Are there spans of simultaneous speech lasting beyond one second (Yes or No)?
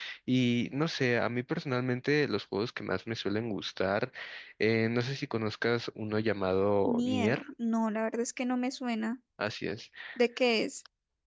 No